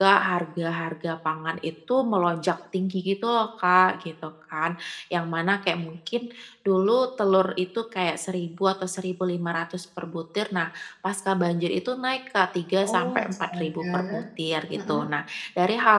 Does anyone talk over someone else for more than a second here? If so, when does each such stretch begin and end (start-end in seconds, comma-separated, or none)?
12.8-14.2